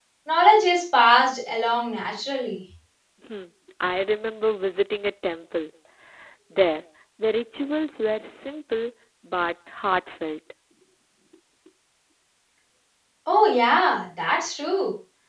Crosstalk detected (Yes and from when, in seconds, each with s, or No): No